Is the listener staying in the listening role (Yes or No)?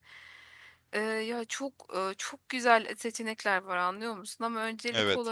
Yes